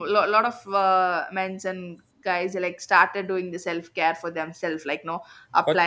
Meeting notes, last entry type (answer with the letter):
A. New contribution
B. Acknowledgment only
B